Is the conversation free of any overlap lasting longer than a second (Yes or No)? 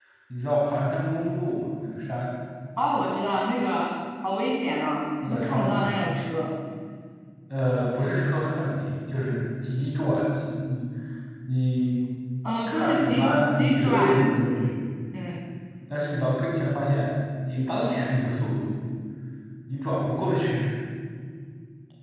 No